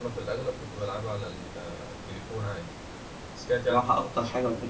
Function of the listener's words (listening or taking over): taking over